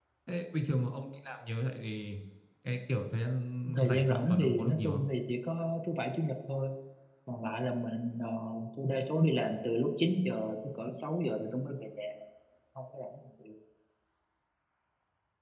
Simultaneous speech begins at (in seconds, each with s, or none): 3.7 s